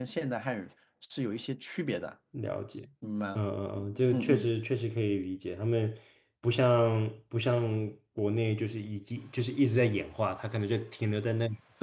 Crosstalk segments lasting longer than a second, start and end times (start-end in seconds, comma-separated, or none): none